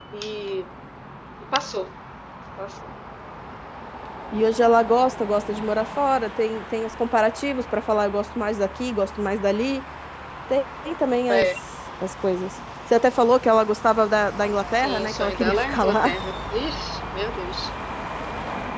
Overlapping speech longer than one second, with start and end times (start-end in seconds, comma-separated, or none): 14.8-16.1